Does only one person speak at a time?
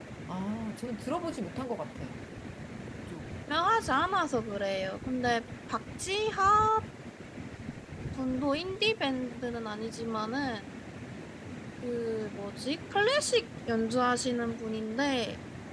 Yes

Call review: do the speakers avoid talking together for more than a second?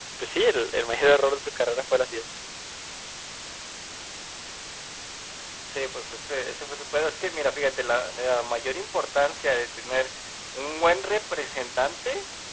Yes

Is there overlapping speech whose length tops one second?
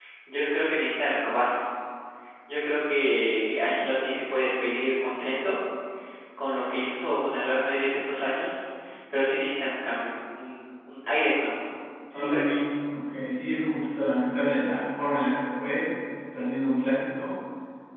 No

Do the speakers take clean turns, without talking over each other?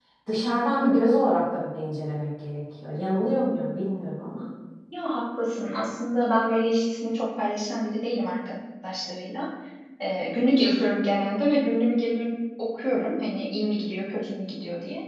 Yes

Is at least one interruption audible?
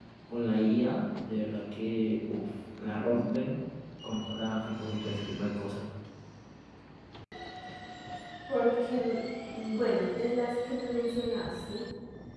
No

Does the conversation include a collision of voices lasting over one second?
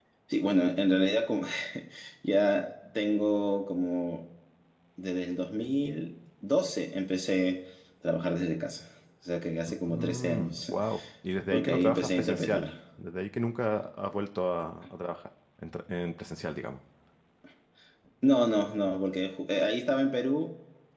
Yes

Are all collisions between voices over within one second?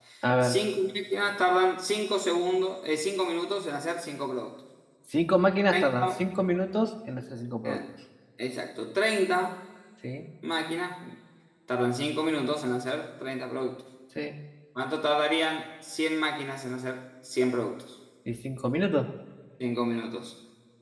Yes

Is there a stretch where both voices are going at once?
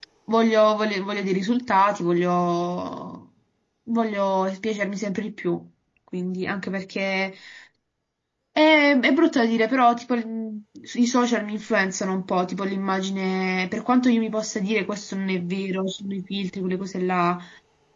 No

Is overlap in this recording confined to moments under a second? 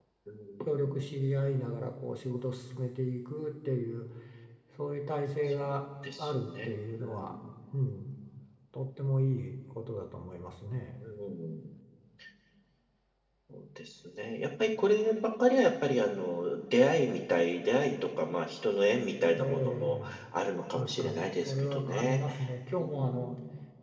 No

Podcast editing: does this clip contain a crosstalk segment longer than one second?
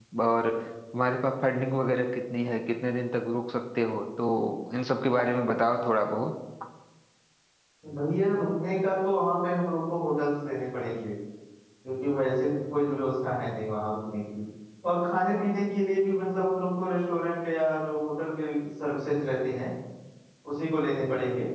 No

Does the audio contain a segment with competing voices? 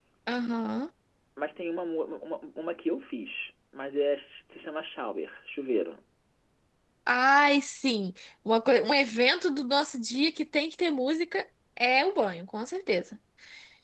No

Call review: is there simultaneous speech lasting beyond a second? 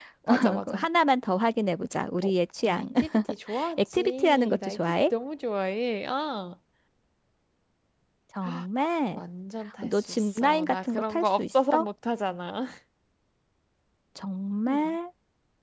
Yes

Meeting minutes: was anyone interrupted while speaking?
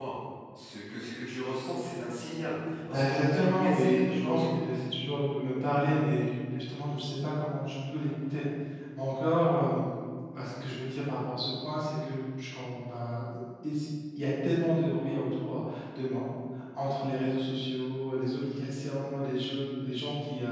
Yes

